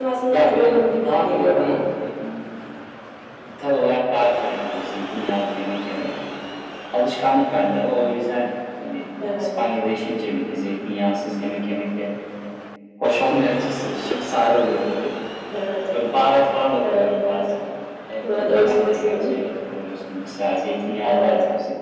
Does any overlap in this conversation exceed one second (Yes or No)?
Yes